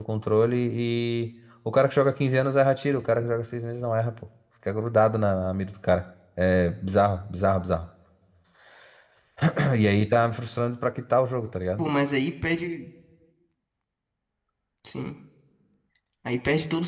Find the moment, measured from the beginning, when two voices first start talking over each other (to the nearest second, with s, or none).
none